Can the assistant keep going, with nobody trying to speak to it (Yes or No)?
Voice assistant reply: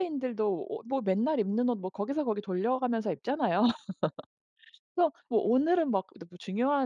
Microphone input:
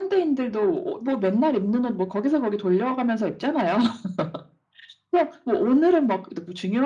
Yes